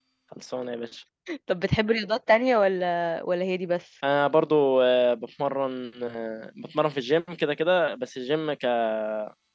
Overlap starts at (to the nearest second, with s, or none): none